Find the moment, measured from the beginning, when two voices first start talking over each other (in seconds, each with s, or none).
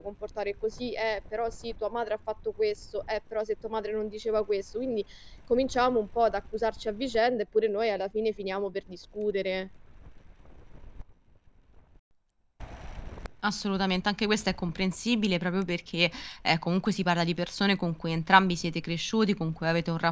none